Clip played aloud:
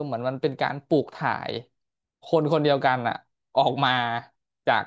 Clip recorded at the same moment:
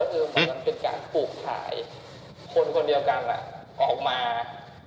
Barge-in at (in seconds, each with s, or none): 0.4 s